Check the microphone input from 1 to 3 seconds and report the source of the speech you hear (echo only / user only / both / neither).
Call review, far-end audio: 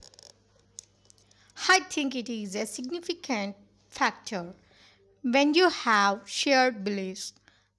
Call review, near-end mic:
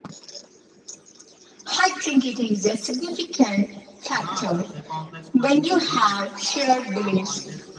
echo only